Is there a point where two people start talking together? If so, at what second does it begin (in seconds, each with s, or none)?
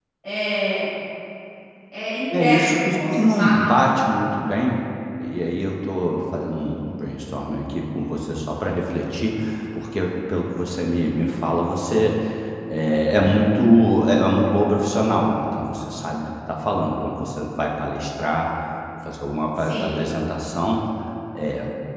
2.4 s